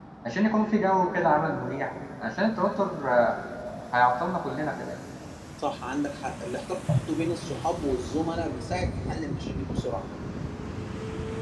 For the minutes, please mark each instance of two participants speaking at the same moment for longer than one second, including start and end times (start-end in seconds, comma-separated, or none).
none